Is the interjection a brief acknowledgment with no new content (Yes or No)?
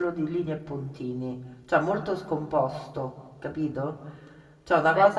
No